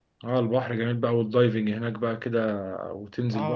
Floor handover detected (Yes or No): Yes